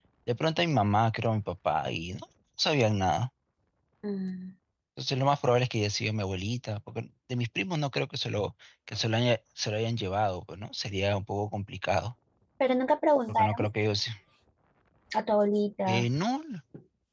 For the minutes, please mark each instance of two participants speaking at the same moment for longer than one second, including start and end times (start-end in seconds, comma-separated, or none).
none